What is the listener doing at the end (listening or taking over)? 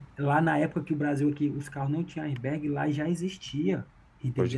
listening